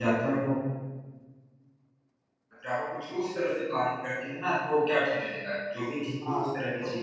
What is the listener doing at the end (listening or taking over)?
taking over